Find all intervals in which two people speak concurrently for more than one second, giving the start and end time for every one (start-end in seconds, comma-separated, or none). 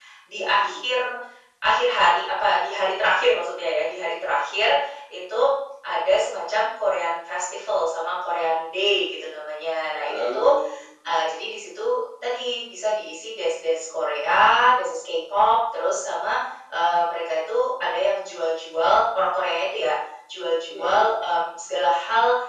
none